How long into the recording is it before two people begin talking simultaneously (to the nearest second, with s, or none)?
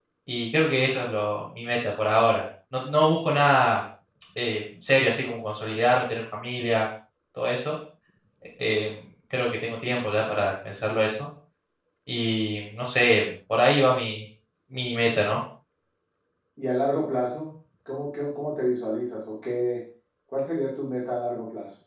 none